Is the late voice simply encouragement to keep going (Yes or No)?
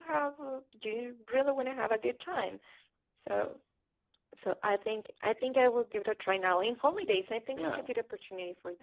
Yes